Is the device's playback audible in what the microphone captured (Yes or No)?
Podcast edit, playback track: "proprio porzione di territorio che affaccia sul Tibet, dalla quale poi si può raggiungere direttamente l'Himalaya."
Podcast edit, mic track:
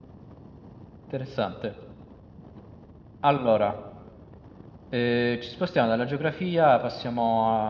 No